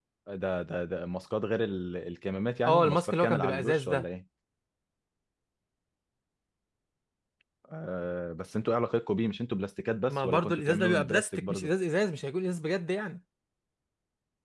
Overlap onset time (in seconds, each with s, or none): 2.6 s